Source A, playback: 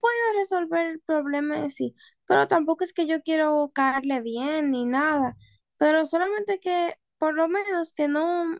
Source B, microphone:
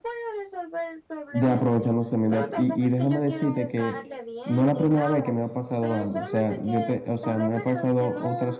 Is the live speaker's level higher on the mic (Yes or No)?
Yes